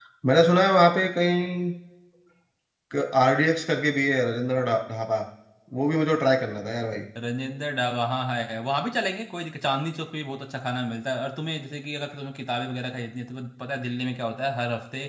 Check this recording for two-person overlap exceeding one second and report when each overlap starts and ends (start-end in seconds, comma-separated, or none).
none